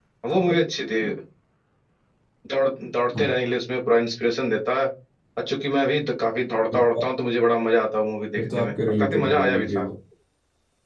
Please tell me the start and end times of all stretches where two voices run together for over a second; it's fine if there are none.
8.3-9.8

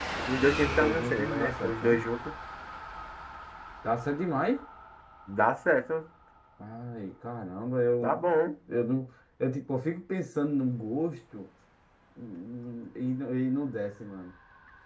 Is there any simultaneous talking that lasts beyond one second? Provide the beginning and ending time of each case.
0.6-2.0

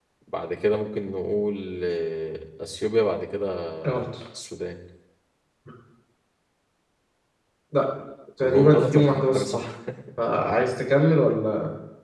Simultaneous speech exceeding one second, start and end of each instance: 8.4-9.6

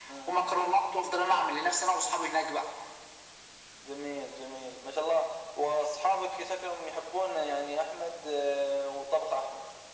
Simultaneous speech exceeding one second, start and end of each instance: none

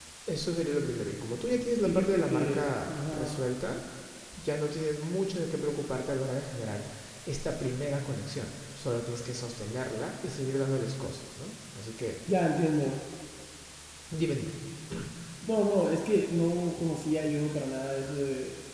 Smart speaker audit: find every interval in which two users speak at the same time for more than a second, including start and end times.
1.8-3.4

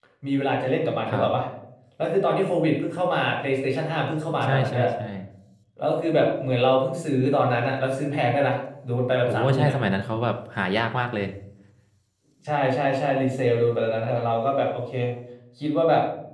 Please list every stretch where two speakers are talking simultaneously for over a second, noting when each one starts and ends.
none

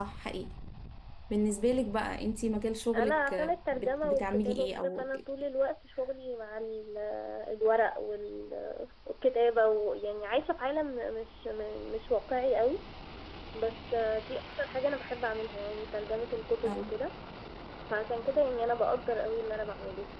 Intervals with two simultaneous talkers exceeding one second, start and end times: 2.9-5.0

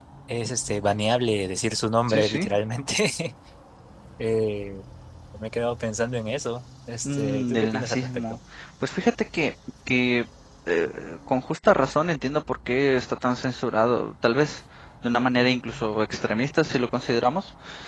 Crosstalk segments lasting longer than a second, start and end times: 7.0-8.4

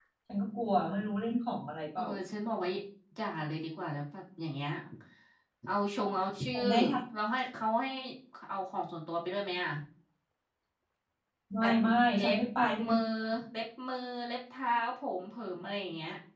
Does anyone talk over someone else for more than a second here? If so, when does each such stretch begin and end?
none

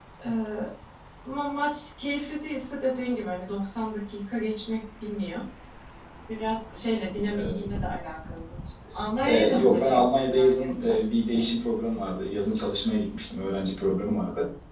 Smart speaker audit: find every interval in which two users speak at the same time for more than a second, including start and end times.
9.2-11.0

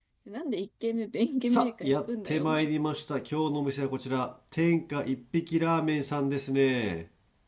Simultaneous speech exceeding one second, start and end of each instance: 1.5-2.7

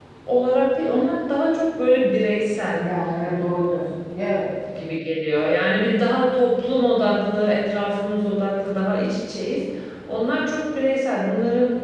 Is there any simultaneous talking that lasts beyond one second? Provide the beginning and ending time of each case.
none

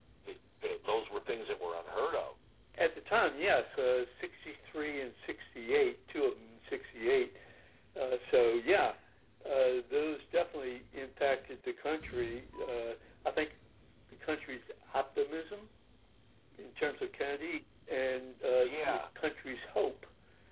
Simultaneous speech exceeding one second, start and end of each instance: none

